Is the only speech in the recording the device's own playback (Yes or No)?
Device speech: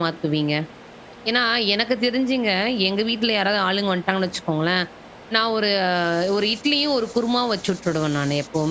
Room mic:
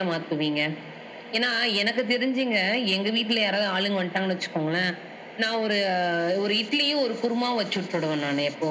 Yes